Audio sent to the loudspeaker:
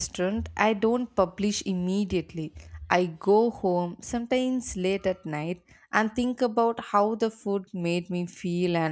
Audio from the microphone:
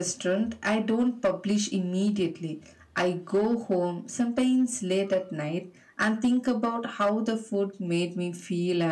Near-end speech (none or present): none